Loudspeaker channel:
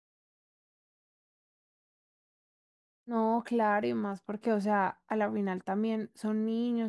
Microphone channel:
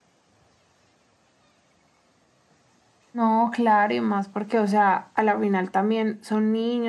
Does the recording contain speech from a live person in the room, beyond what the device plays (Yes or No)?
No